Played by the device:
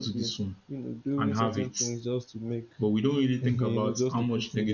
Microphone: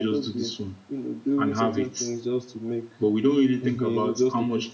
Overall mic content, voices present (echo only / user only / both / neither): echo only